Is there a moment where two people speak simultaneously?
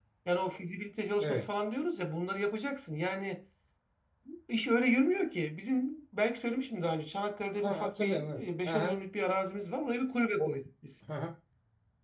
Yes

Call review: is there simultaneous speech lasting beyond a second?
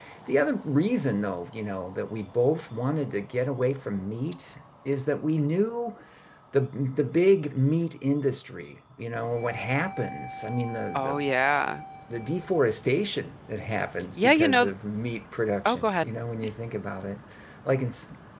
No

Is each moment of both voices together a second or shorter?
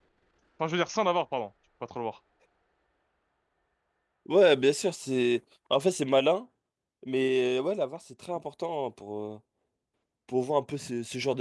Yes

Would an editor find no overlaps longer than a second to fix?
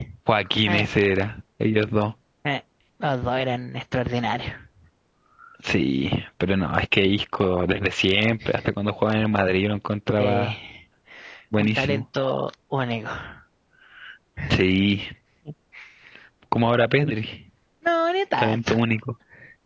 Yes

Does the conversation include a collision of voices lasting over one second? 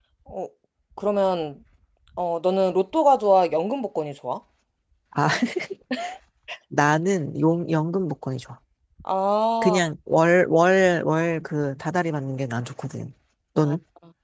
No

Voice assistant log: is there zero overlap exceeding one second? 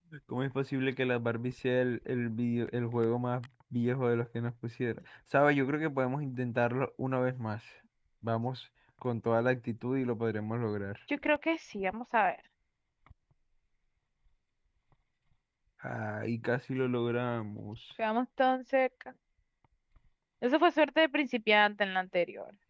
Yes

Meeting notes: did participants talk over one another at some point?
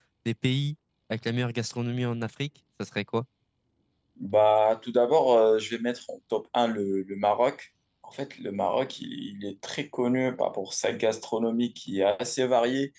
No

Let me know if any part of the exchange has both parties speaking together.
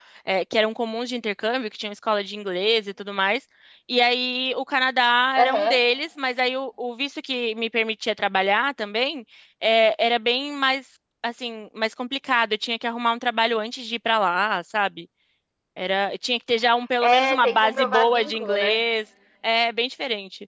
Yes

